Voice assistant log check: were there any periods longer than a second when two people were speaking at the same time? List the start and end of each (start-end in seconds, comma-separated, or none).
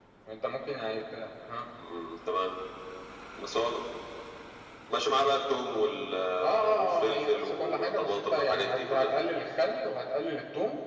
6.4-9.1